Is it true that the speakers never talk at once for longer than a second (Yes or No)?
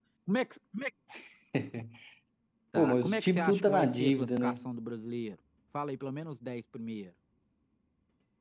No